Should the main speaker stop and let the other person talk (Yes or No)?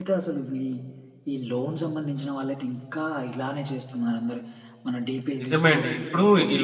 Yes